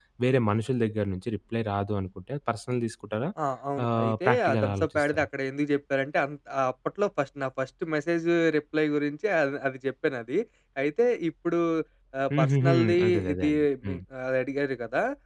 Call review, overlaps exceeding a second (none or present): present